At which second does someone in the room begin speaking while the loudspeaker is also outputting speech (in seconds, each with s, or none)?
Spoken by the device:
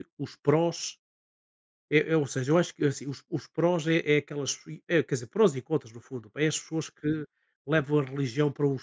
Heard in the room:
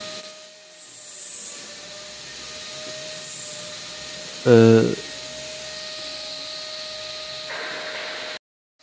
4.5 s